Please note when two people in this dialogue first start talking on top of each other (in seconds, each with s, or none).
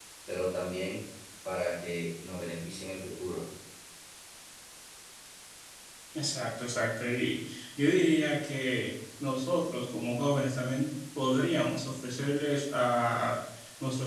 none